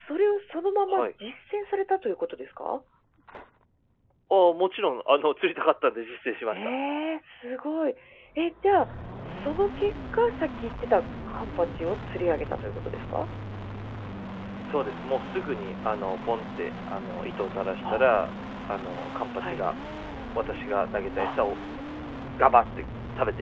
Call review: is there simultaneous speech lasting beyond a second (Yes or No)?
No